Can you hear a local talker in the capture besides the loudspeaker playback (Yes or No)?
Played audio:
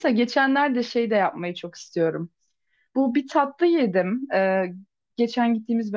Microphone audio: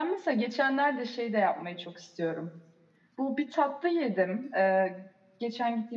No